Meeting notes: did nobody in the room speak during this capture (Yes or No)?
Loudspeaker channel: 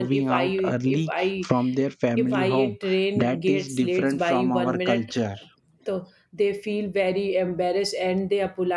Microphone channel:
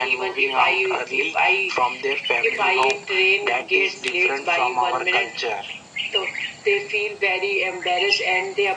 Yes